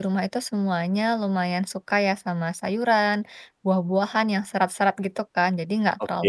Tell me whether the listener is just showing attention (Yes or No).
Yes